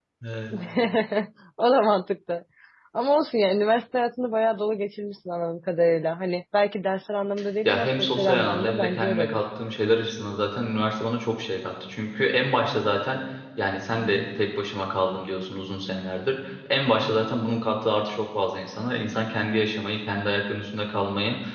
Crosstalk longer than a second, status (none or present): present